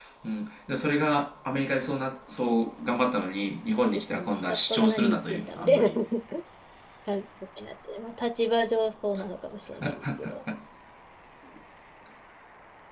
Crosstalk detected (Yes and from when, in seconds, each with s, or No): Yes, from 3.8 s